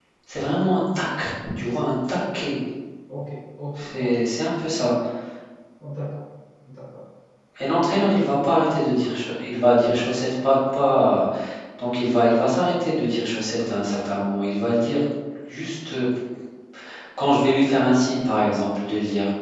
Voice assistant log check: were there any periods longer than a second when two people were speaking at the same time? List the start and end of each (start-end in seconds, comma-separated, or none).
none